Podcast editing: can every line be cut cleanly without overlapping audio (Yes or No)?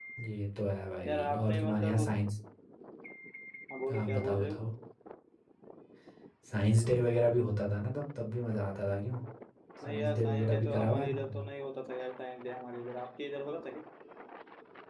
No